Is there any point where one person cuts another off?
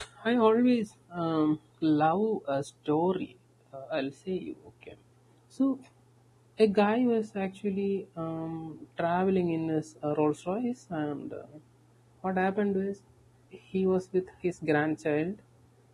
No

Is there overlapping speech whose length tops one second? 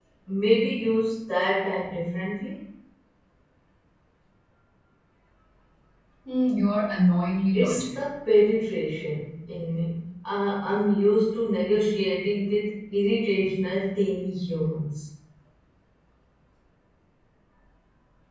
No

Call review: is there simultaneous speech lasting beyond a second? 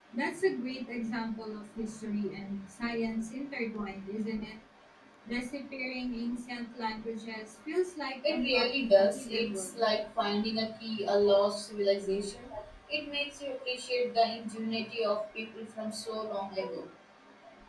Yes, from 8.2 s

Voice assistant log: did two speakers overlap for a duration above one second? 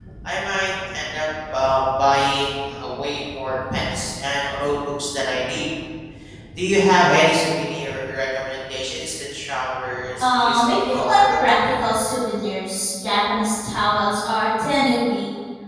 Yes, from 10.2 s

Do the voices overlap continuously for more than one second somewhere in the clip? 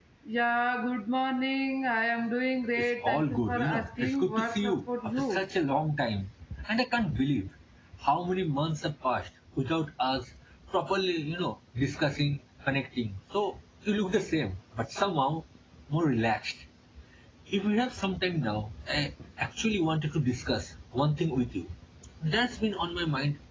Yes, from 2.8 s

